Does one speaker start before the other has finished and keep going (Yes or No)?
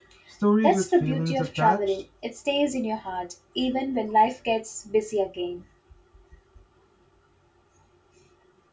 Yes